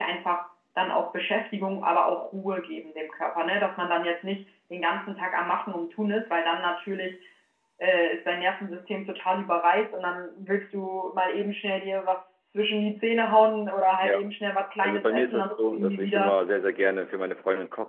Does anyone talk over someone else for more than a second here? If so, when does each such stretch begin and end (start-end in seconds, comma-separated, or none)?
14.8-16.3